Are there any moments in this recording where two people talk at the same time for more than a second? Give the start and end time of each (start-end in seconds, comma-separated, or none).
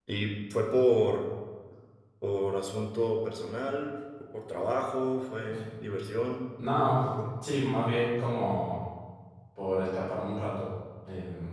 none